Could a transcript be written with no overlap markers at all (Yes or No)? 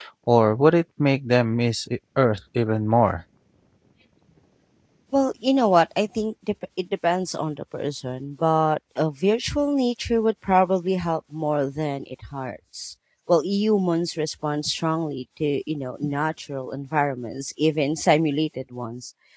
Yes